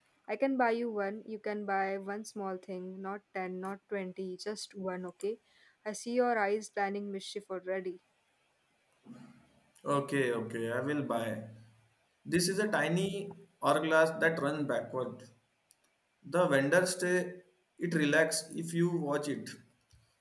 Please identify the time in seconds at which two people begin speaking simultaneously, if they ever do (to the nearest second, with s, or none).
none